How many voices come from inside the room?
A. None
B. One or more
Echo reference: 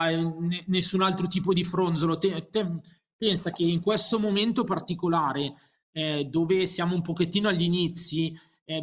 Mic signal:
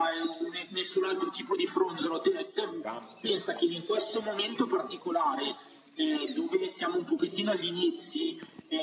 B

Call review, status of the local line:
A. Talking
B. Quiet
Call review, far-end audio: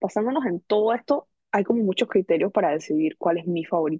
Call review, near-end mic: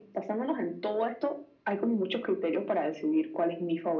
B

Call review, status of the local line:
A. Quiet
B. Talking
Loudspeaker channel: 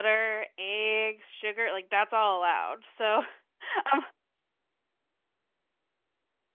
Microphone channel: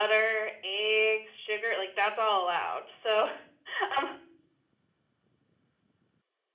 A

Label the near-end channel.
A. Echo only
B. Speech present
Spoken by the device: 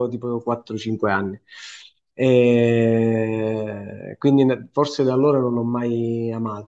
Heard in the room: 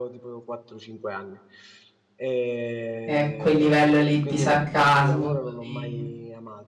B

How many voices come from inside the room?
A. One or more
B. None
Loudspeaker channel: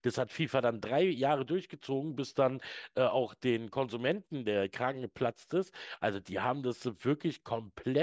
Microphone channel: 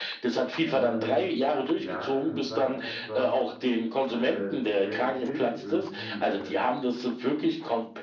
A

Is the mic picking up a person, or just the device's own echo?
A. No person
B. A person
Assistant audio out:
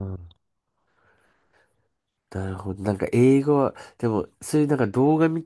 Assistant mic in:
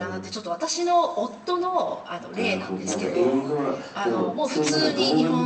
B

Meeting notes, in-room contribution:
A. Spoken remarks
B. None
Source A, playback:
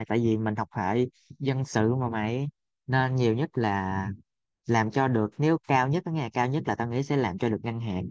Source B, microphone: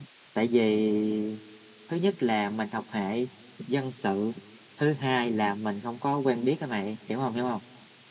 A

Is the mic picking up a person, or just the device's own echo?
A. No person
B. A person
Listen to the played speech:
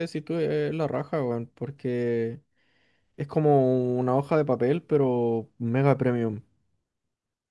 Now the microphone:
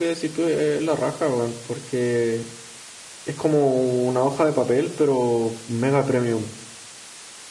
A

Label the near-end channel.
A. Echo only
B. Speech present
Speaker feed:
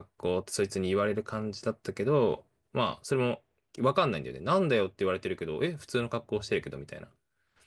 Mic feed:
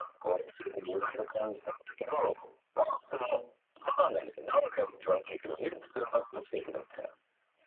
A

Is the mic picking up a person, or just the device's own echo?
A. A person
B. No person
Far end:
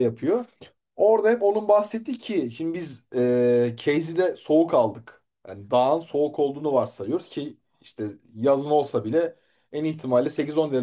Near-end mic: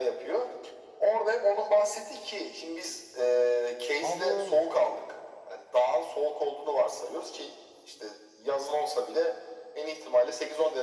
A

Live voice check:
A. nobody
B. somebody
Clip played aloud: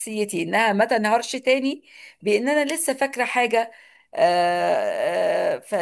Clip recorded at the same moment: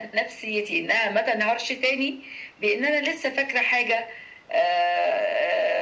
A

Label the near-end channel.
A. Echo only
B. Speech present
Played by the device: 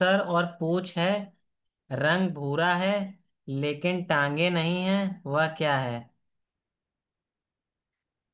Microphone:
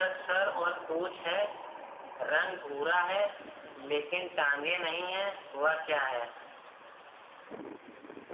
A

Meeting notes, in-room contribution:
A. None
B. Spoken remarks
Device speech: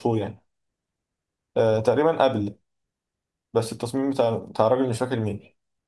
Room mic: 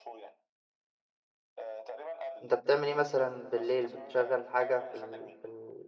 B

